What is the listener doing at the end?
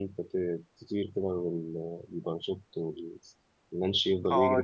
taking over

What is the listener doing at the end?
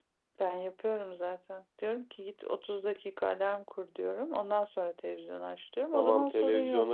taking over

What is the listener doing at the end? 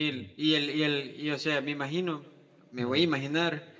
listening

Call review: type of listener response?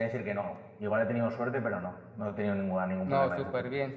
taking over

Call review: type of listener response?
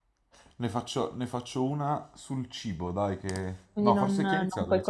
taking over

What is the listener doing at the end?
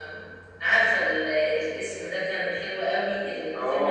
taking over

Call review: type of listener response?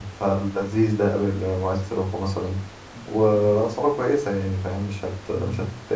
taking over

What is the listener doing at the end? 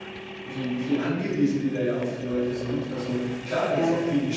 listening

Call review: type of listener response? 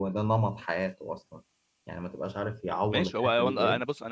taking over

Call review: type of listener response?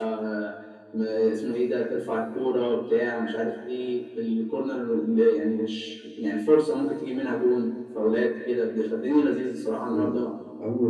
taking over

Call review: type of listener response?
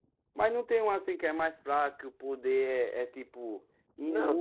taking over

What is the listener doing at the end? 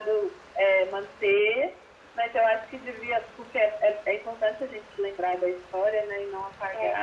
listening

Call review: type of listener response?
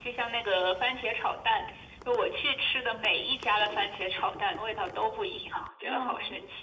taking over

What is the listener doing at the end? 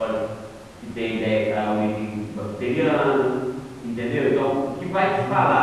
listening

